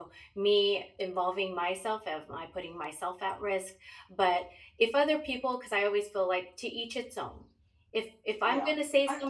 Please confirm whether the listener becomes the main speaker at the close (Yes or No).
Yes